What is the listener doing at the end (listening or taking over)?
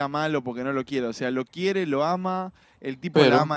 listening